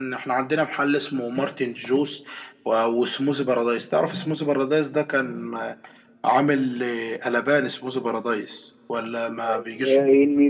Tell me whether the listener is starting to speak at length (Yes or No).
Yes